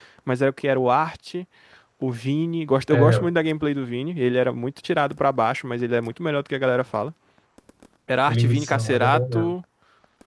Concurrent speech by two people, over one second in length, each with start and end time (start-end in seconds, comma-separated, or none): 8.3-9.5